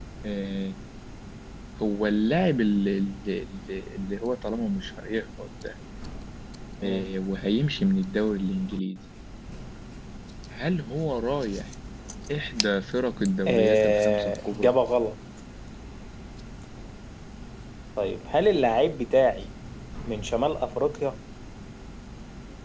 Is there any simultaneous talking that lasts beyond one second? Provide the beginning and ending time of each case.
13.5-14.7

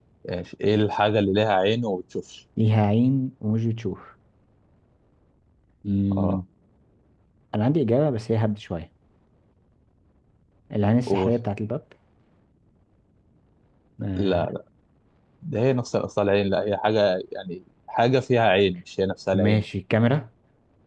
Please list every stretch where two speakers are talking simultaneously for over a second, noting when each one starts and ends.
none

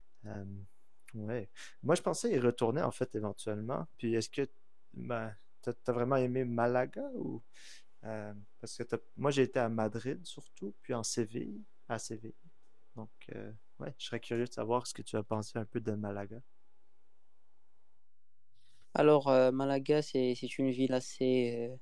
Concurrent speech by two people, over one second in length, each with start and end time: none

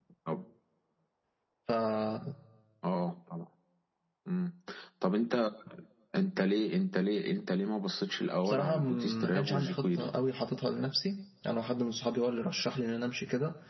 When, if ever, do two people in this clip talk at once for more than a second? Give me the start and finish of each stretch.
8.5-10.1

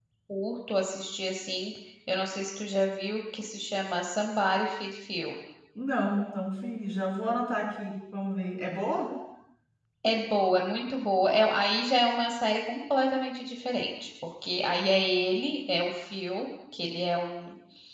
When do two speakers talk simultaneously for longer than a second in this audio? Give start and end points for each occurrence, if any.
none

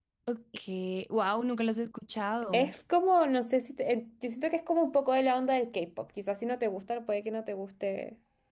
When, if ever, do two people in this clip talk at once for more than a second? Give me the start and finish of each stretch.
none

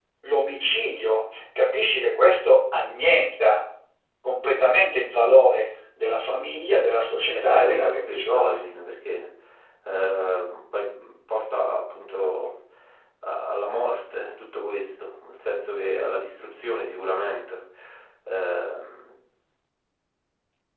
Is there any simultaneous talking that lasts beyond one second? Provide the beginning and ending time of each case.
7.3-8.7

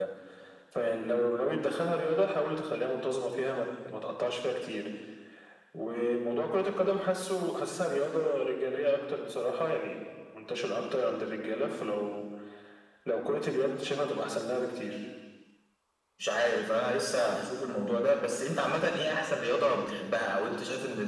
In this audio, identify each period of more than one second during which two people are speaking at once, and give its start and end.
none

